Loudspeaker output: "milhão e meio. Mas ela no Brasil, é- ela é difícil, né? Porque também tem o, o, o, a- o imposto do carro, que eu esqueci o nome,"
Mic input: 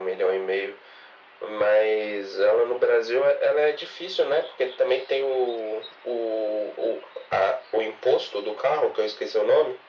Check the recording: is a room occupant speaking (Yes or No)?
No